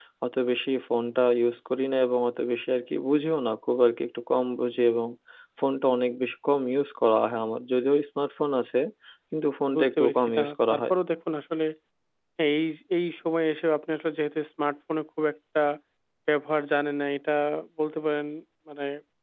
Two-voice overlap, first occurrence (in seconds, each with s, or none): 9.7 s